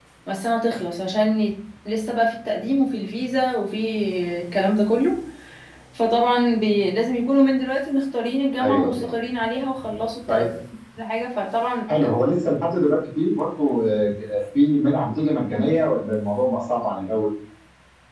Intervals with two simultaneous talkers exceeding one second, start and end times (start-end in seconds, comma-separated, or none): none